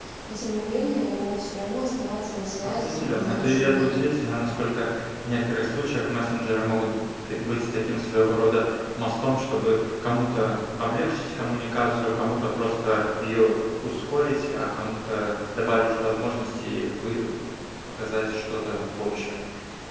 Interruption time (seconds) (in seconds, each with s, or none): 2.6 s